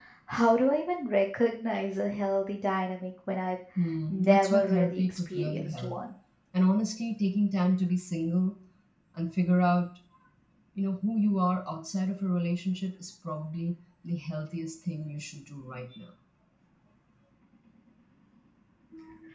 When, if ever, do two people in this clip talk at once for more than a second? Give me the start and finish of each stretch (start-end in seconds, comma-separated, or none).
4.1-6.0